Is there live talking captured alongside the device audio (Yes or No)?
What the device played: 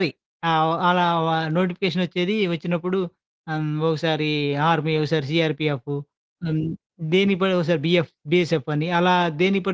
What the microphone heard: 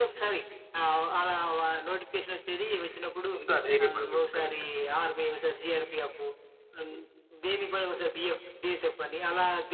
Yes